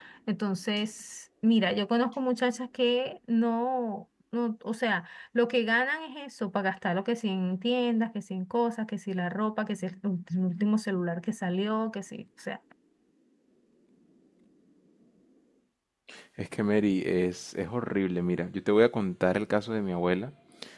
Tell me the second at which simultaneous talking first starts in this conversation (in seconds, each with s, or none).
none